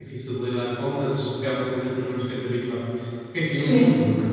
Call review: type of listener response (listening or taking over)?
listening